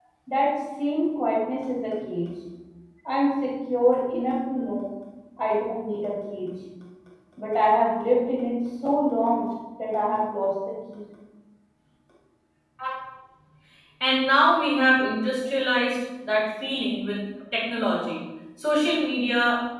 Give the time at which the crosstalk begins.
none

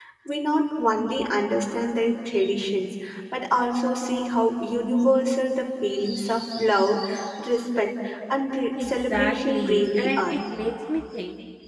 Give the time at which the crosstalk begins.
9 s

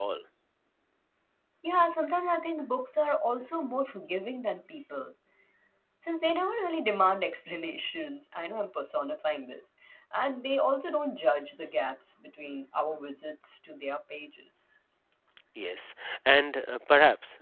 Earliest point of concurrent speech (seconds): none

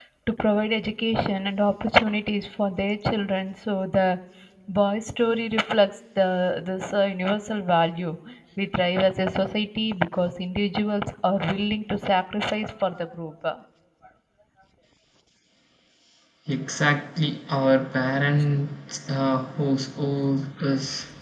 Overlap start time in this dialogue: none

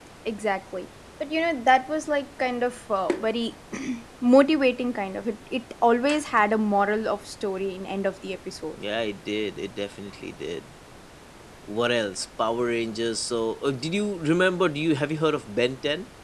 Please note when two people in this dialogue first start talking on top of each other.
none

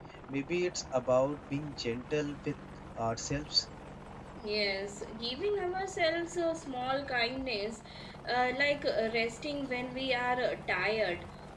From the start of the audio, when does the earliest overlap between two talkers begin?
none

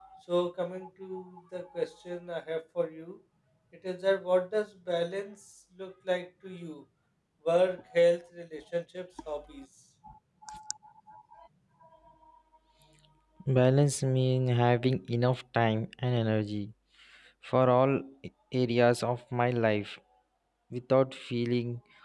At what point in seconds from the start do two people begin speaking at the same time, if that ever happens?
none

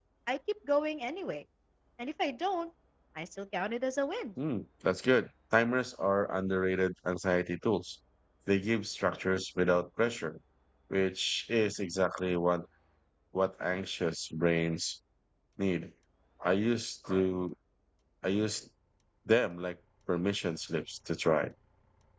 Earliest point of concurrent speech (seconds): none

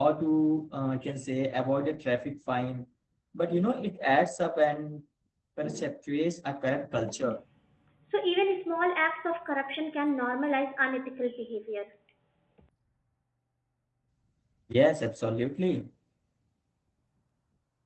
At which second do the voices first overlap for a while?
none

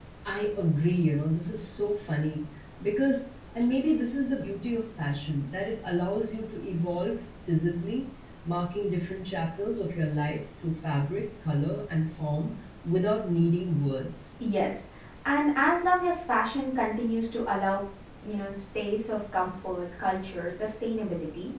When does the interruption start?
none

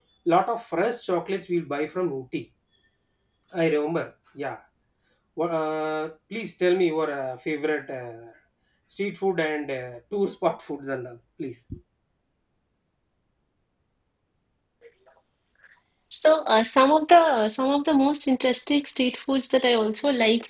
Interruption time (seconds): none

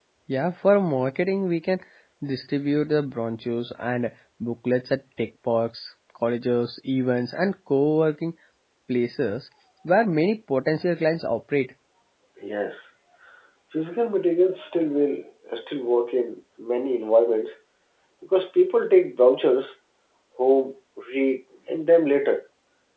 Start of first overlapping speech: none

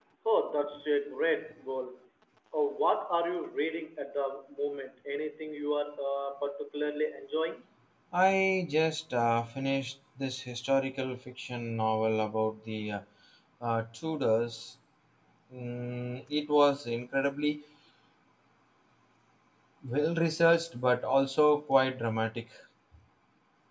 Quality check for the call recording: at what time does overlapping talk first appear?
none

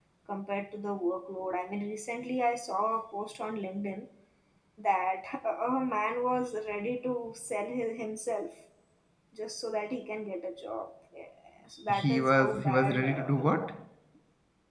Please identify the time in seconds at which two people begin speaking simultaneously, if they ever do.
12 s

